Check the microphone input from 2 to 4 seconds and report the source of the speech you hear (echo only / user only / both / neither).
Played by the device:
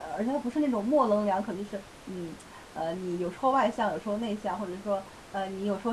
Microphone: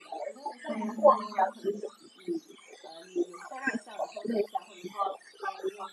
echo only